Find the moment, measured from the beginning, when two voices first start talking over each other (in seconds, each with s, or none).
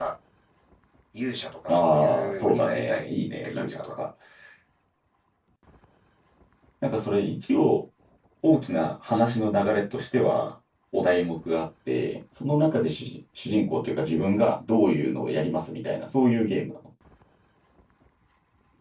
1.7 s